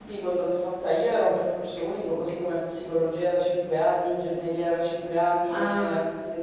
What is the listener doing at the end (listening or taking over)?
listening